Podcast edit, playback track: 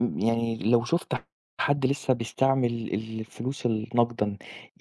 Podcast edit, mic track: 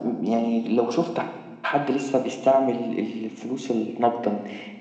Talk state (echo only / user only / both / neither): echo only